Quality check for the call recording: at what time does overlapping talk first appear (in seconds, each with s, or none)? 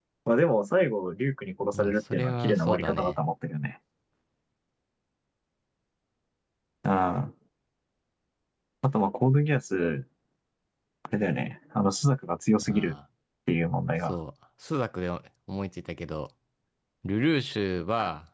1.7 s